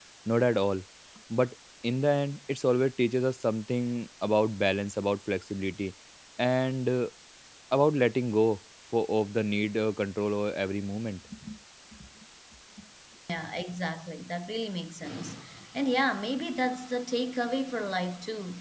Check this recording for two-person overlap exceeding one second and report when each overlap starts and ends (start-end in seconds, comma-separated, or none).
none